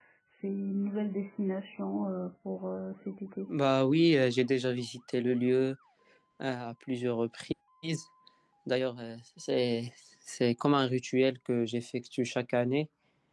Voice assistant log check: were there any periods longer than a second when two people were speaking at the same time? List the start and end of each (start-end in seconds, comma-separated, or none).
none